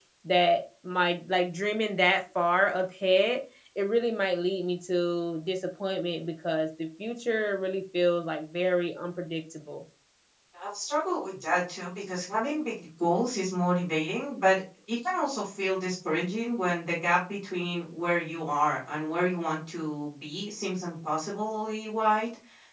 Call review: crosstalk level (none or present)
none